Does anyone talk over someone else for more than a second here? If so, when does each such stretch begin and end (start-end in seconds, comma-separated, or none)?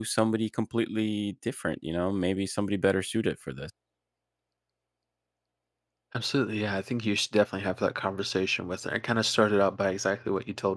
none